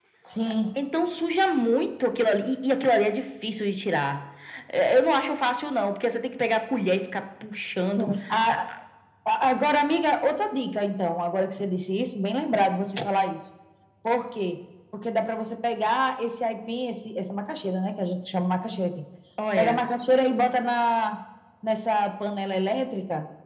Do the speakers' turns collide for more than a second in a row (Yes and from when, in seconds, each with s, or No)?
No